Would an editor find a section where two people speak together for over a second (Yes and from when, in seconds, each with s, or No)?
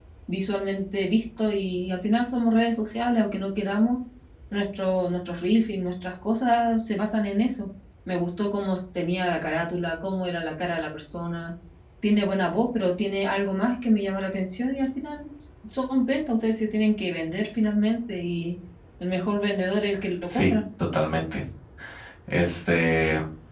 No